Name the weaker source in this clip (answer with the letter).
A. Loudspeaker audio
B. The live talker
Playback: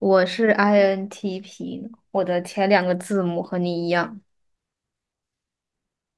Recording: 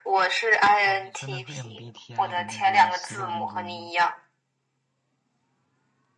B